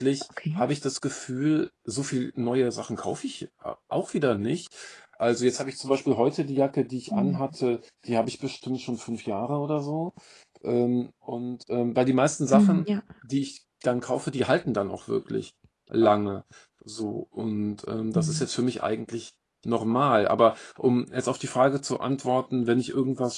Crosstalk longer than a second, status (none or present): none